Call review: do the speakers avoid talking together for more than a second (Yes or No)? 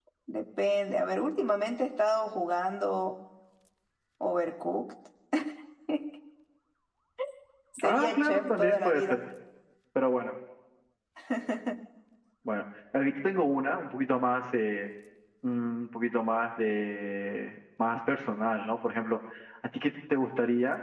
No